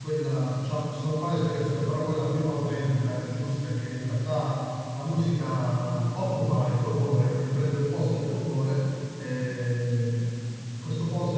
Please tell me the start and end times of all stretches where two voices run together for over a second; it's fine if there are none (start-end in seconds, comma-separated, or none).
none